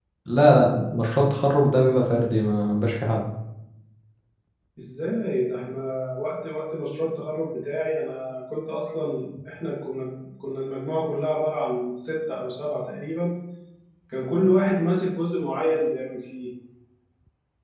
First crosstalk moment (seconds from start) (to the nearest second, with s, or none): none